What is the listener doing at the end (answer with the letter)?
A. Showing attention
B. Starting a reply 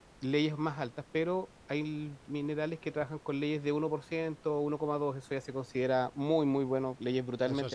B